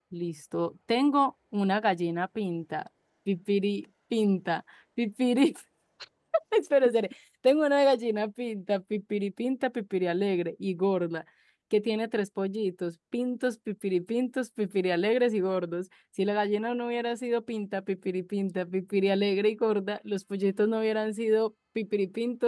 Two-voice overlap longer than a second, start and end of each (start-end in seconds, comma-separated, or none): none